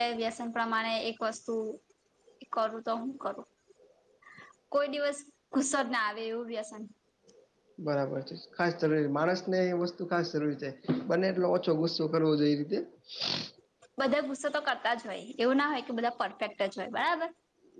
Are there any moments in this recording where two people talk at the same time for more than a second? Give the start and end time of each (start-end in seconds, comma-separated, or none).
none